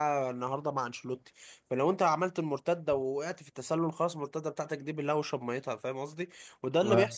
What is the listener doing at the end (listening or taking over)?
listening